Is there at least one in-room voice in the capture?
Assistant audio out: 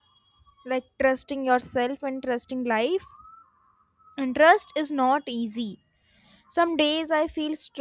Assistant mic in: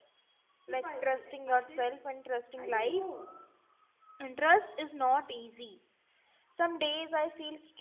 Yes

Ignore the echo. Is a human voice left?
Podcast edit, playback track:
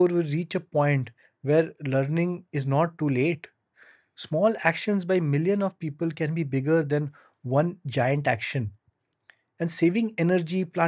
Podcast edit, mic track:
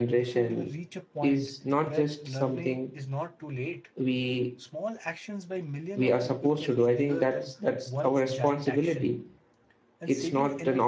Yes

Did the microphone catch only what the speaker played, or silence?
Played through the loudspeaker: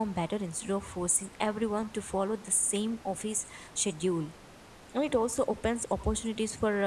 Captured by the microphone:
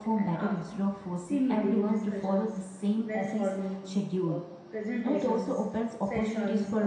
No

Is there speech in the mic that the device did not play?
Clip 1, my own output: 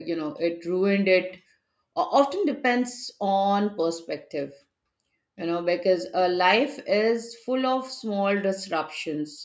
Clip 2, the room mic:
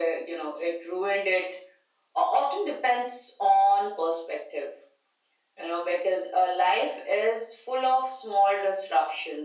No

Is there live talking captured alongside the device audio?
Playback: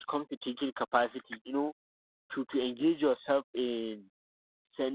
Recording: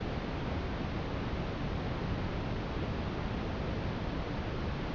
No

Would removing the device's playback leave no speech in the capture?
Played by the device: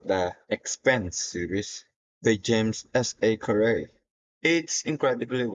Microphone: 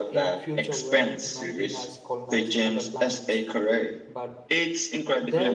No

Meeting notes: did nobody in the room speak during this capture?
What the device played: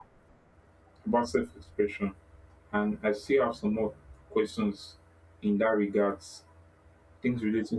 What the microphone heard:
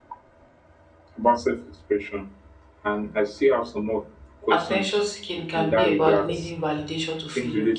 No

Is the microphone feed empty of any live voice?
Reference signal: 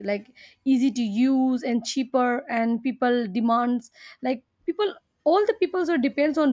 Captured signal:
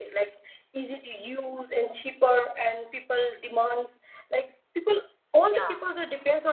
No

